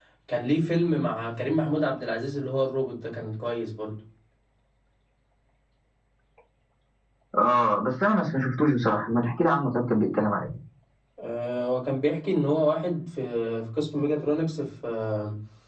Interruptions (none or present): none